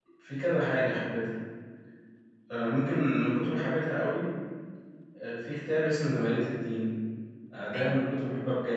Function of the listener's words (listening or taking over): listening